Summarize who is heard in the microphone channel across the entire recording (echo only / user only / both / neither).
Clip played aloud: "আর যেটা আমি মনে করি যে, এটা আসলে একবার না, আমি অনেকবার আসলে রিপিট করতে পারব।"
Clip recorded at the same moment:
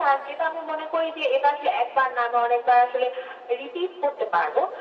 echo only